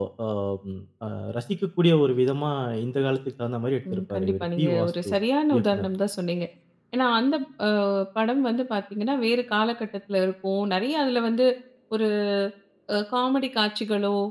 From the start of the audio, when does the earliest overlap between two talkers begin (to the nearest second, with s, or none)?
4 s